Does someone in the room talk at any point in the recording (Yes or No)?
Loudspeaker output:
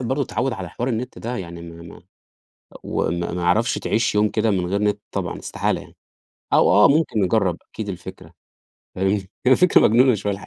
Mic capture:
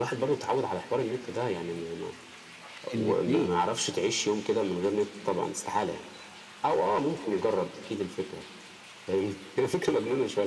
Yes